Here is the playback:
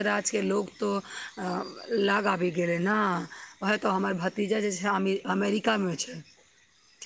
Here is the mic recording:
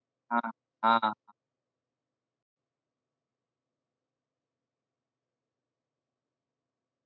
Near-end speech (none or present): present